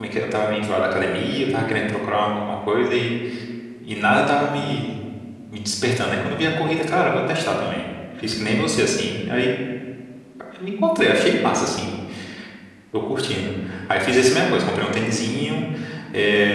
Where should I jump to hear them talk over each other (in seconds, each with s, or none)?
none